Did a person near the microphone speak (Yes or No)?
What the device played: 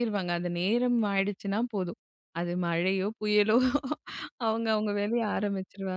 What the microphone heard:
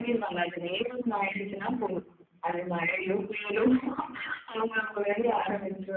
No